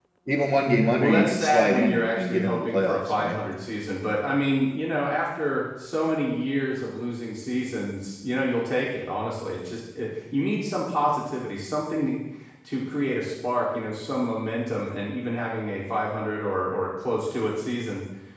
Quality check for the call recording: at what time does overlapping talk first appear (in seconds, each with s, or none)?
1.0 s